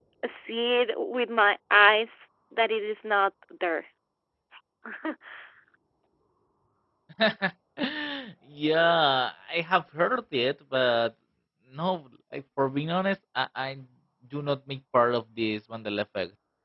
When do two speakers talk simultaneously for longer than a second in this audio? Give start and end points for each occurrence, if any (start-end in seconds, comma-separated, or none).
none